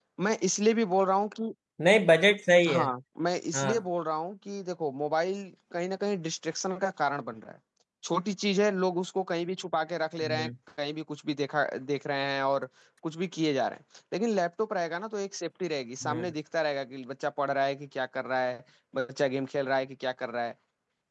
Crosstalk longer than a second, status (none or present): none